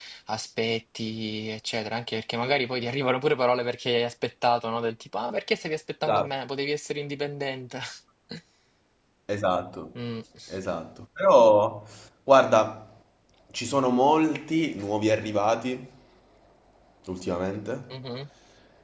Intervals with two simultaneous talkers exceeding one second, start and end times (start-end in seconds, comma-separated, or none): none